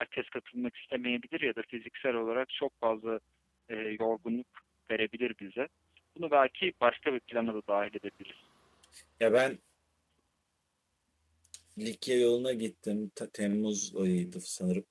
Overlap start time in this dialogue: none

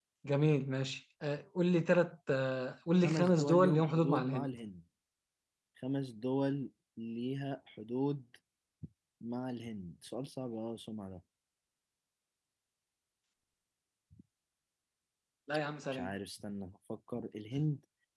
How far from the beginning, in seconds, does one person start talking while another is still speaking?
3.0 s

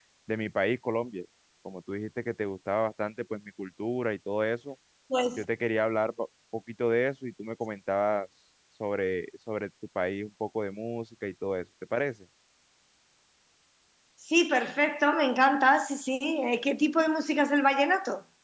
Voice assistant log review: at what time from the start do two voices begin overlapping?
none

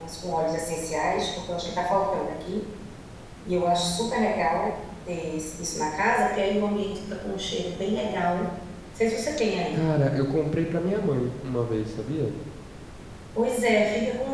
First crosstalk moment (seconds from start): none

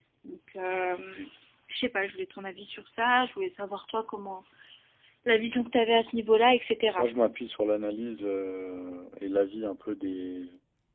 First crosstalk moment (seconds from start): none

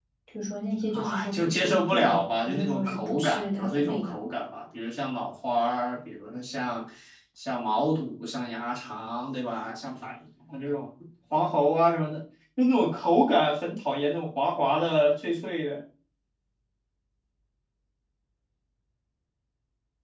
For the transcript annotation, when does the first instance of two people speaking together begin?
0.9 s

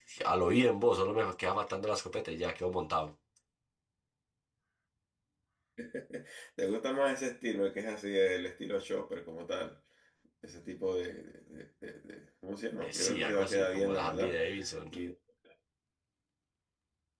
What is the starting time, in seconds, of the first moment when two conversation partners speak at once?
12.8 s

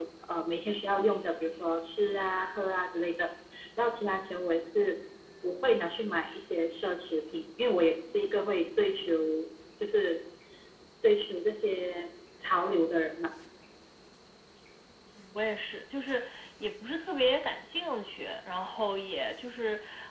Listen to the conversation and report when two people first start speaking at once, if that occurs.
none

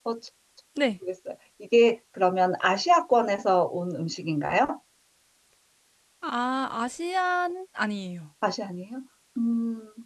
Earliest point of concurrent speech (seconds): none

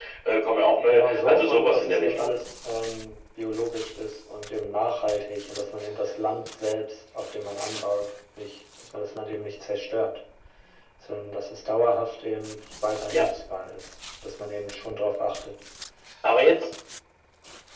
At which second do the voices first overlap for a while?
0.9 s

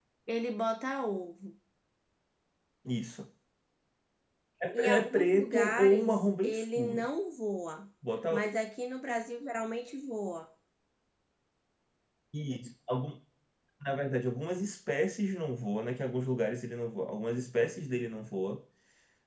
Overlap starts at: 4.7 s

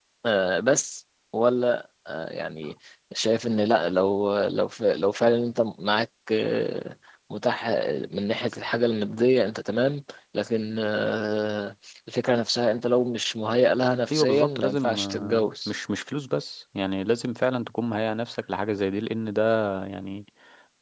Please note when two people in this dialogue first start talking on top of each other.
14.1 s

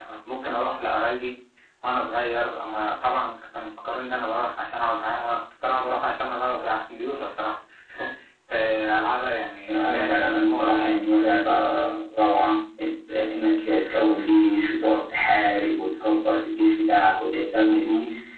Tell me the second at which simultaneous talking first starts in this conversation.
9.7 s

